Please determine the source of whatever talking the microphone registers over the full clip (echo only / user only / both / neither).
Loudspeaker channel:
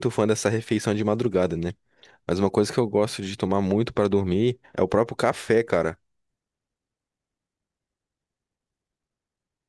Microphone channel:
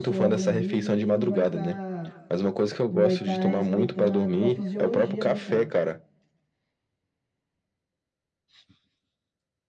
both